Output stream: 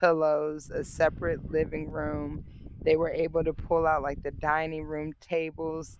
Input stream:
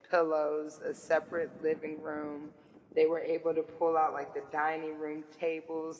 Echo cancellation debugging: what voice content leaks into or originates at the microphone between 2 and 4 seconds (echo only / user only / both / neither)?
echo only